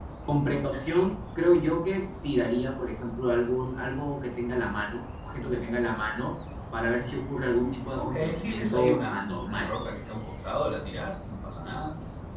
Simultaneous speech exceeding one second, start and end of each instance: 8.0-9.7

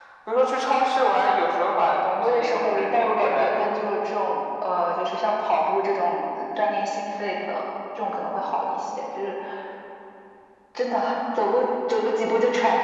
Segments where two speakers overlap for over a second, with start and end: 2.2-3.8

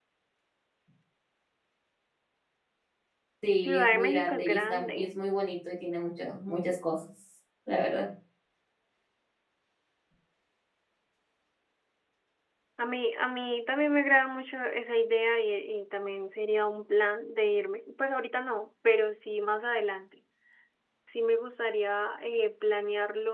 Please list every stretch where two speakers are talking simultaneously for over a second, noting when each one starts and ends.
3.6-5.2

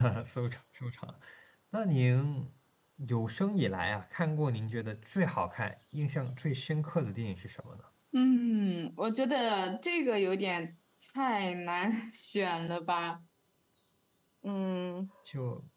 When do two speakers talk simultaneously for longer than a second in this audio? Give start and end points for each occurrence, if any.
none

